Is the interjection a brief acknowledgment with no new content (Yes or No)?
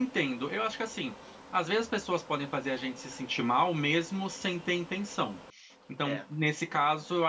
Yes